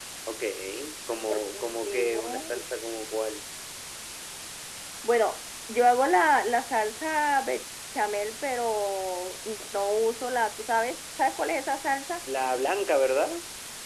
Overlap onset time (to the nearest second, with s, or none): 1 s